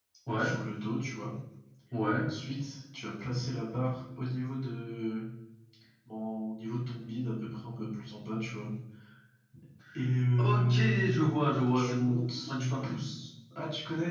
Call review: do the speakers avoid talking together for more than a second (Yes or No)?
No